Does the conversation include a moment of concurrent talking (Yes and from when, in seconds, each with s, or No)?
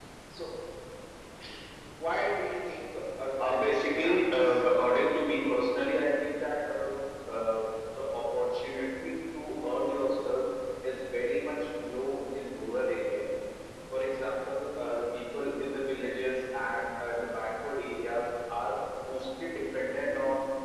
Yes, from 3.4 s